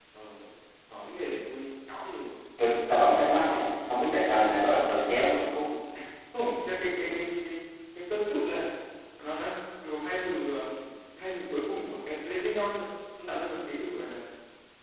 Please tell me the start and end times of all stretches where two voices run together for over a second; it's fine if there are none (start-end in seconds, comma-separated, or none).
none